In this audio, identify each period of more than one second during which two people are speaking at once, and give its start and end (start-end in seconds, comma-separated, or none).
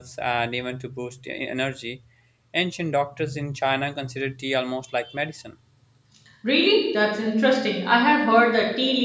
none